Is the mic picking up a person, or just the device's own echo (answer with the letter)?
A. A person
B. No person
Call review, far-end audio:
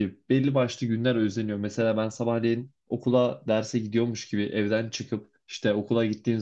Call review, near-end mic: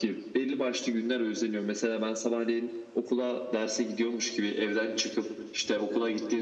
B